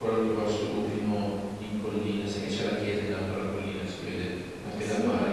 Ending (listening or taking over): taking over